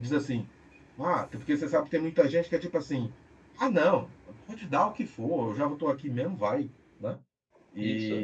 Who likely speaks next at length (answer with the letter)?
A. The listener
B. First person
B